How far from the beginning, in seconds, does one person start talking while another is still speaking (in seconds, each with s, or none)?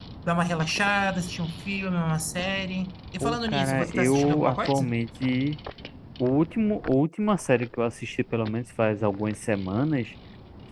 3.2 s